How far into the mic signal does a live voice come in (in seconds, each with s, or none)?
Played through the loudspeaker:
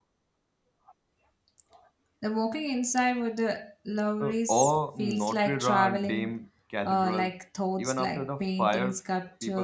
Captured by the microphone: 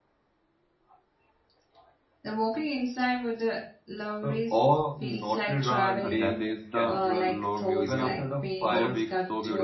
6.0 s